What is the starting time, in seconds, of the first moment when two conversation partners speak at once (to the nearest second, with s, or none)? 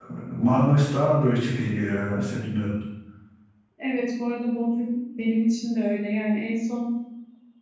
none